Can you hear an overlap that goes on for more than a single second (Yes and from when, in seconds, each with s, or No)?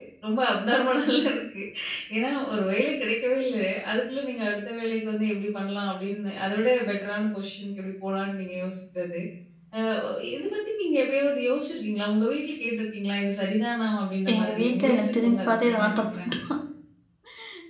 Yes, from 14.3 s